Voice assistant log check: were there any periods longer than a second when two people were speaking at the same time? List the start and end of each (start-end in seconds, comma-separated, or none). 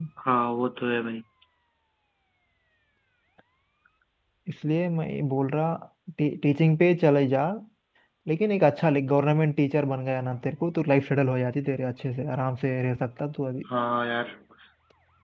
none